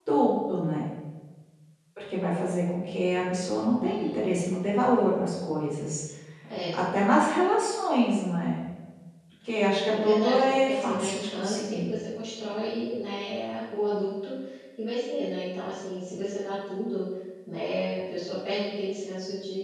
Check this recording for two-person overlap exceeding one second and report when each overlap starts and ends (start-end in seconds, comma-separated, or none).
9.8-11.9